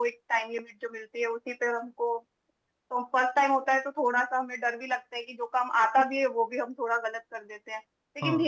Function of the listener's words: listening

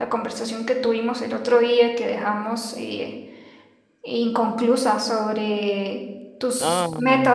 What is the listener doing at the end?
listening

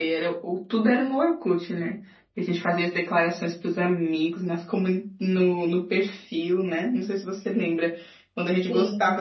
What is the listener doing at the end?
listening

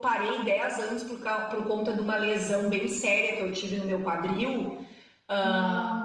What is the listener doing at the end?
listening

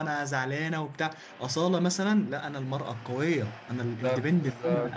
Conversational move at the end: listening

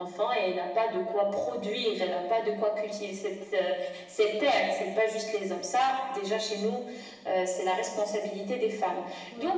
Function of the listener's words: listening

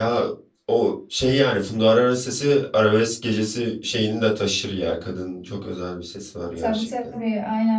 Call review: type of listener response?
taking over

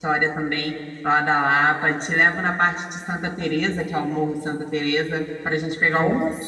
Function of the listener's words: taking over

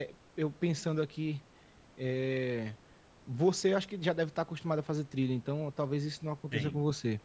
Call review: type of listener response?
listening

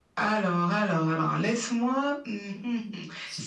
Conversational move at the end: listening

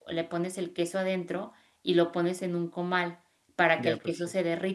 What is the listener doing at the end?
listening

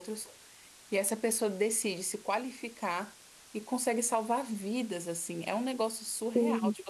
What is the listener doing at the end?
listening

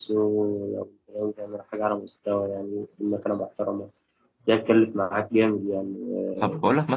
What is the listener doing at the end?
taking over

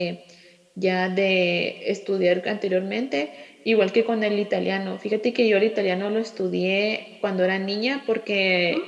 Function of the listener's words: listening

